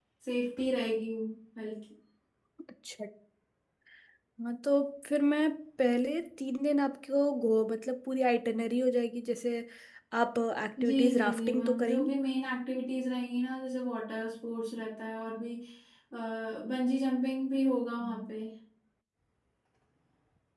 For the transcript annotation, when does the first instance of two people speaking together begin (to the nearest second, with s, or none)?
11 s